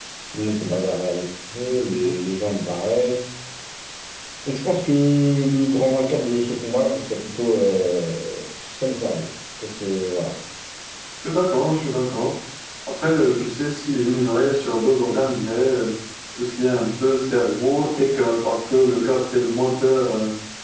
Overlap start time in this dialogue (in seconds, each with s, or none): none